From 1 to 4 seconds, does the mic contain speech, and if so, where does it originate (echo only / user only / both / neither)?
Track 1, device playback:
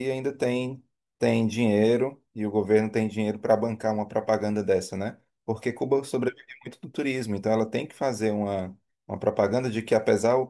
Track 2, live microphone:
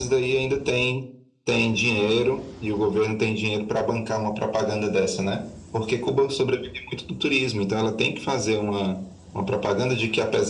echo only